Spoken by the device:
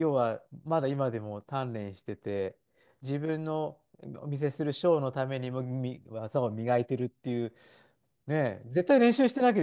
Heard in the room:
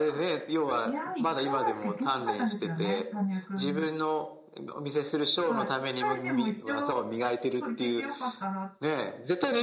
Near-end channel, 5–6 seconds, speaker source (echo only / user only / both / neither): both